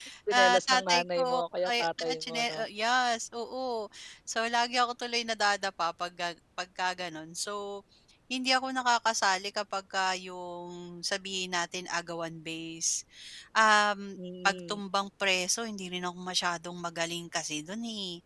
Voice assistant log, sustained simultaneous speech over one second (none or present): present